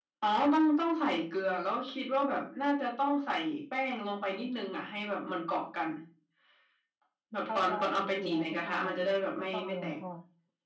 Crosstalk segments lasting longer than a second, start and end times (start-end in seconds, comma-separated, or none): 7.5-9.8